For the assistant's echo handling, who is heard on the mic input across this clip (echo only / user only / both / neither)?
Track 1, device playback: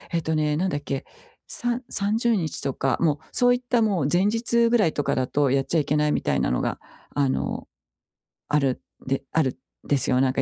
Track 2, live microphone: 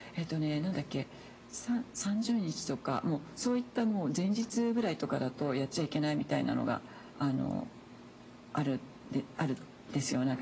echo only